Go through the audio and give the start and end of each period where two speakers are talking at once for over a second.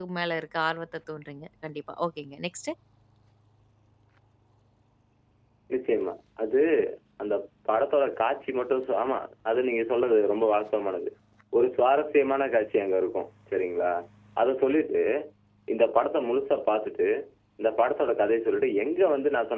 none

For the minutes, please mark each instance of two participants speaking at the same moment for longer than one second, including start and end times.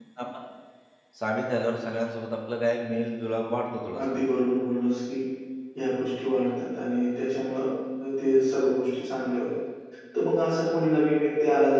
none

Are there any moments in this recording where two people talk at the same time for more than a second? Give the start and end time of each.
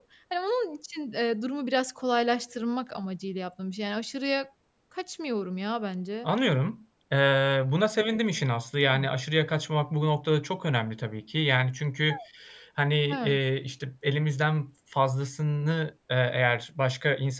none

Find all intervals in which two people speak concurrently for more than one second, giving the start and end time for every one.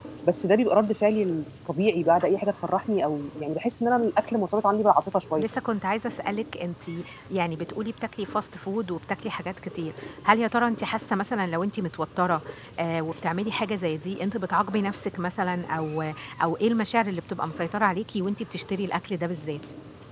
none

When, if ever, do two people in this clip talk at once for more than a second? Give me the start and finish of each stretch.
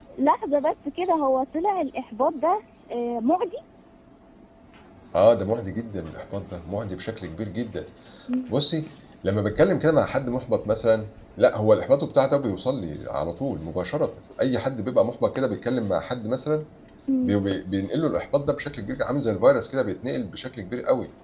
none

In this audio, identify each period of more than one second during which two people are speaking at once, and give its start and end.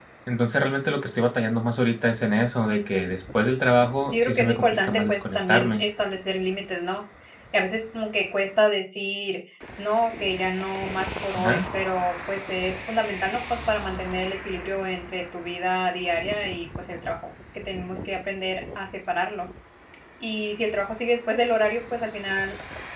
4.1-5.9

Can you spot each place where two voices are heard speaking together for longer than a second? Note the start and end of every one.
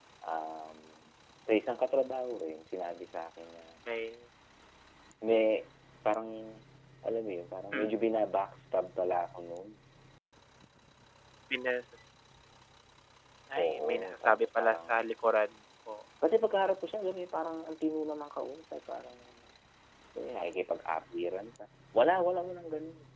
13.6-15.1

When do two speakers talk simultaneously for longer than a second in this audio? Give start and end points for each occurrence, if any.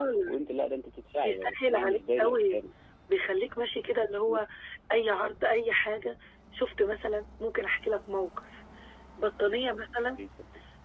1.2-2.6

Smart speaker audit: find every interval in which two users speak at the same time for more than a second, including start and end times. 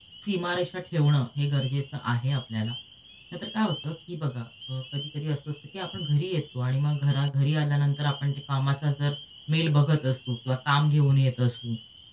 none

